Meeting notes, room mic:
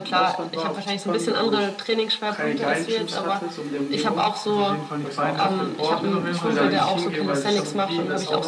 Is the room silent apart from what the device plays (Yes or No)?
No